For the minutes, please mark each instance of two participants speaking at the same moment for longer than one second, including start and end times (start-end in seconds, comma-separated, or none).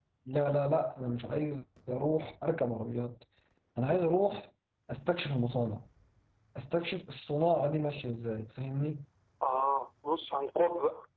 none